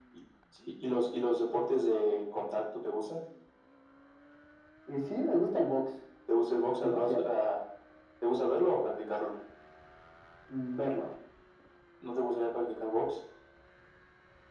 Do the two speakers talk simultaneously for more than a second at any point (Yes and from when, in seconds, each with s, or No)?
No